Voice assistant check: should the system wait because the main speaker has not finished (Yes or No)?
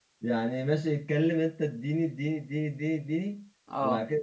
Yes